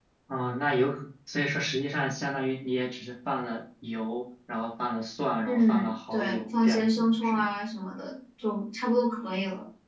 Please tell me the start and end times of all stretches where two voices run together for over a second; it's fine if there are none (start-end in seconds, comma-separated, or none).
5.5-7.5